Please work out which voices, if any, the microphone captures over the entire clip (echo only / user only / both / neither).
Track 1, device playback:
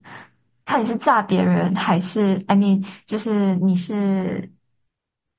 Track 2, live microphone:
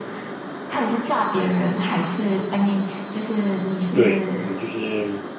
both